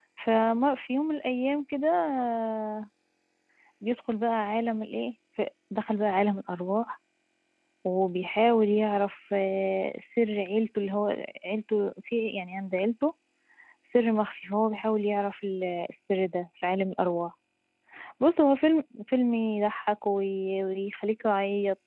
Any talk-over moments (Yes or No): No